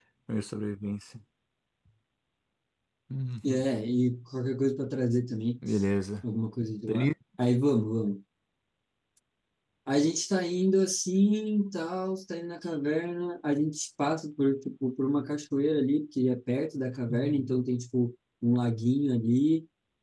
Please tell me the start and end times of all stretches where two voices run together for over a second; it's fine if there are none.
none

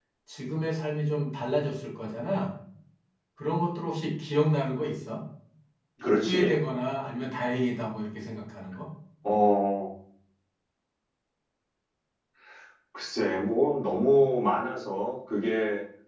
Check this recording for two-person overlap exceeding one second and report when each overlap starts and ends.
none

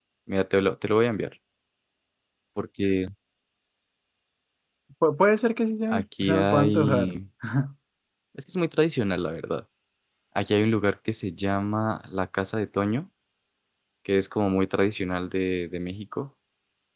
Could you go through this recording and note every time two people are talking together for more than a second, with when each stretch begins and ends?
5.9-7.1

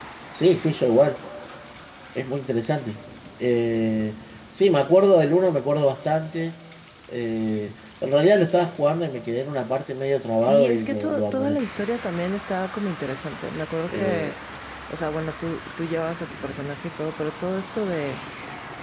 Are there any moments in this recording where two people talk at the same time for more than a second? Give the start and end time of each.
10.4-11.6

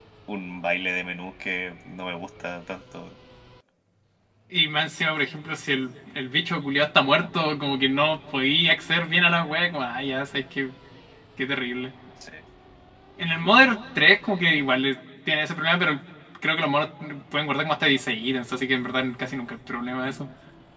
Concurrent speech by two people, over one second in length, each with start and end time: none

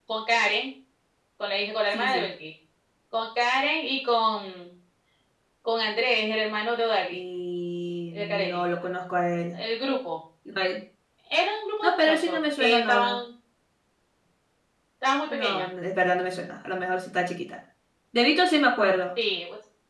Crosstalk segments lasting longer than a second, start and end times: 11.8-13.2

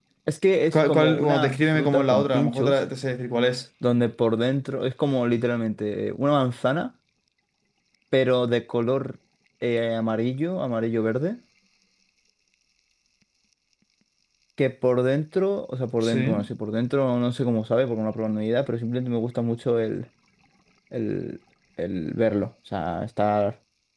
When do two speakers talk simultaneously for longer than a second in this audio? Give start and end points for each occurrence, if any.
0.7-2.8

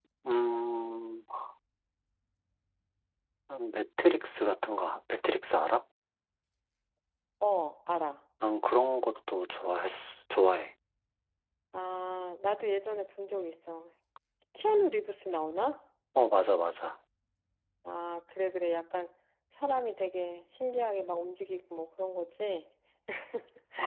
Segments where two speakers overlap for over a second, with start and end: none

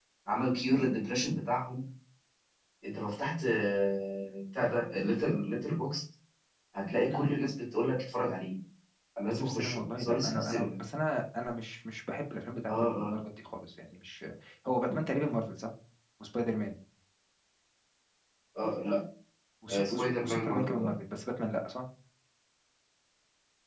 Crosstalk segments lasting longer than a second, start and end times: 9.3-10.7, 19.7-20.9

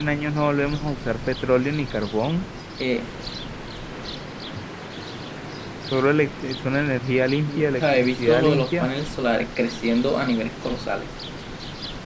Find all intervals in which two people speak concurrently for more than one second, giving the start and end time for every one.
7.5-8.9

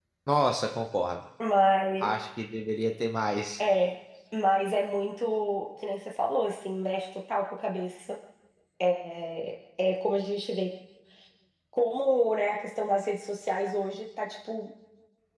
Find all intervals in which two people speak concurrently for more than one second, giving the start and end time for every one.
none

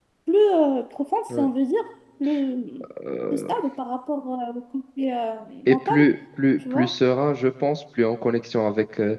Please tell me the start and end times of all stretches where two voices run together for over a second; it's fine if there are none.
none

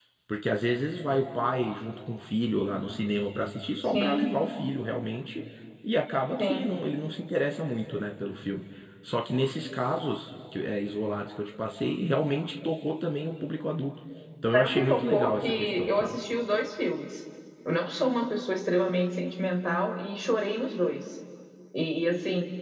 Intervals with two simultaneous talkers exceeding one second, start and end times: 14.5-16.2

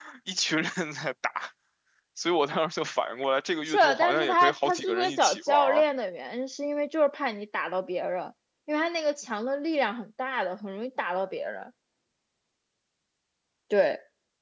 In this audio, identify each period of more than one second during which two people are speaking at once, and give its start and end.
3.7-5.8

